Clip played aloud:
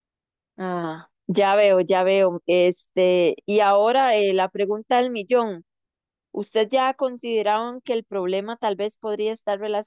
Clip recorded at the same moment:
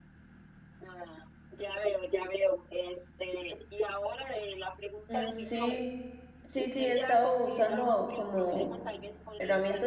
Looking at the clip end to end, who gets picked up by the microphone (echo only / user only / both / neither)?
both